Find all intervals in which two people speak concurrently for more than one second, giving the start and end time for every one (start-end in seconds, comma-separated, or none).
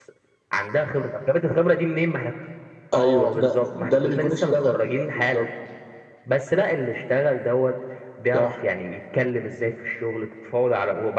3.0-5.4